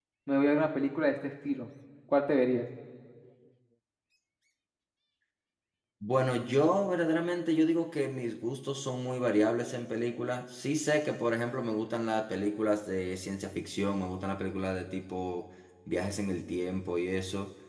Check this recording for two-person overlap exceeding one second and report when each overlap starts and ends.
none

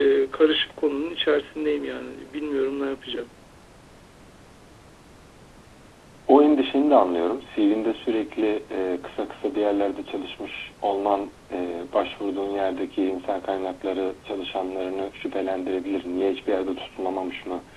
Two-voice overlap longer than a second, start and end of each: none

